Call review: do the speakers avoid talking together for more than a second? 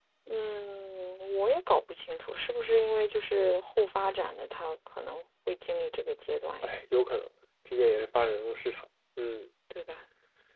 Yes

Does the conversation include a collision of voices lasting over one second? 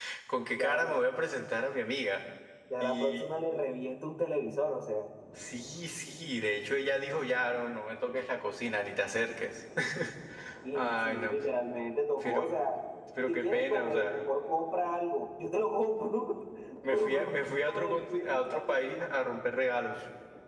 Yes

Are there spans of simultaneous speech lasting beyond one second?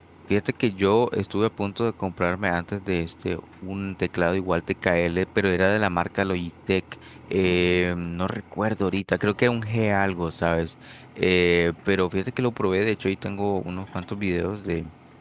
No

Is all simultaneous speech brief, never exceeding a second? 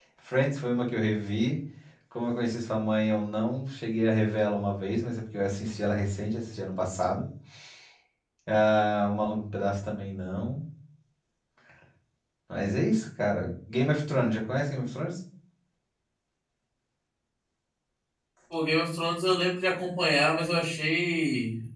Yes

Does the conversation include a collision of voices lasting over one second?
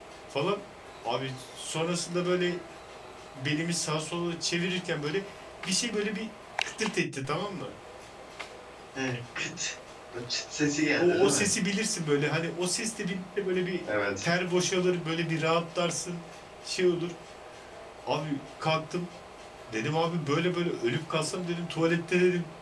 No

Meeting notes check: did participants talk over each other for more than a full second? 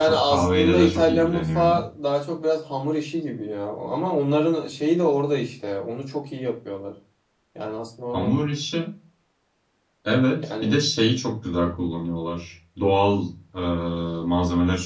Yes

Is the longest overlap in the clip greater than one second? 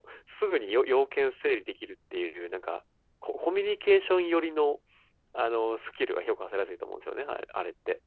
No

